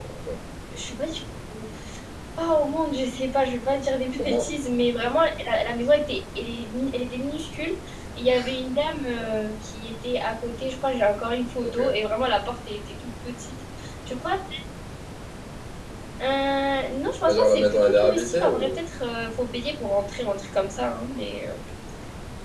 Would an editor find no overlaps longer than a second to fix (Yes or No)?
No